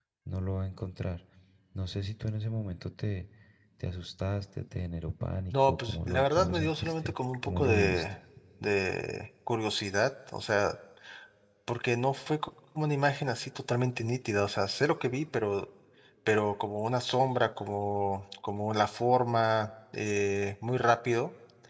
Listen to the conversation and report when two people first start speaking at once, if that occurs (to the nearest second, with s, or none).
6 s